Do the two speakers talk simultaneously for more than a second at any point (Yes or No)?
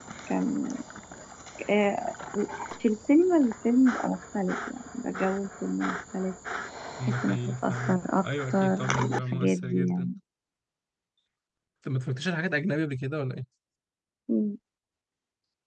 Yes